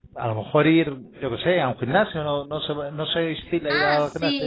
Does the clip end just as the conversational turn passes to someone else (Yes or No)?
Yes